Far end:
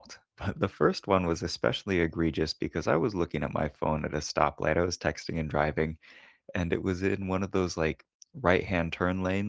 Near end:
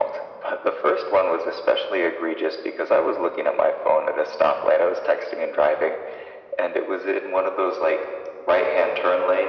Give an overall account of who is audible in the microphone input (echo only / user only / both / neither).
echo only